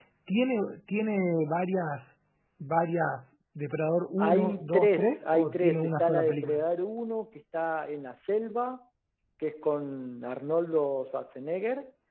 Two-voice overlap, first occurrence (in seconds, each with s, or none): 4.2 s